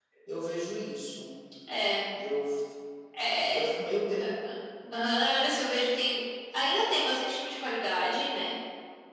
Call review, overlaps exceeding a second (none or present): none